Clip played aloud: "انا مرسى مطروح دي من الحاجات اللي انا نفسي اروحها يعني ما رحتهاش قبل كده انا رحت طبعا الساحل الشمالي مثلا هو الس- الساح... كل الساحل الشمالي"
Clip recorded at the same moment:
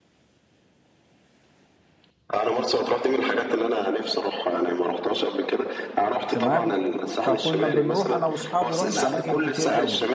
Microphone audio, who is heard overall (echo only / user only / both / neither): both